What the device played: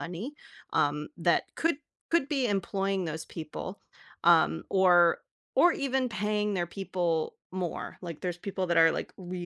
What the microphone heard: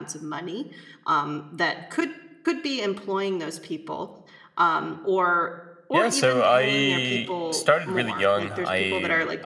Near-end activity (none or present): present